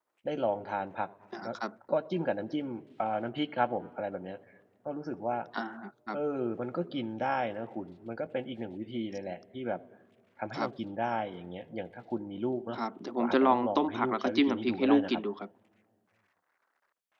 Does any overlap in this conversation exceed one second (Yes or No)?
Yes